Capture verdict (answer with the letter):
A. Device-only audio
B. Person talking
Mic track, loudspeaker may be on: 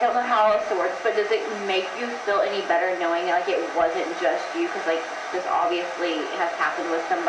A